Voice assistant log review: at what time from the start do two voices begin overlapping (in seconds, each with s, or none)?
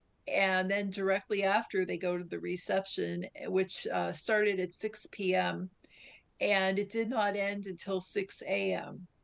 none